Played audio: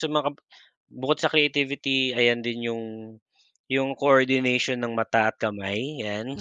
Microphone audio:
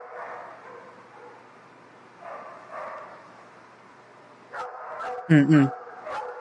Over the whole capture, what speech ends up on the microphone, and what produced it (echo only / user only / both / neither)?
user only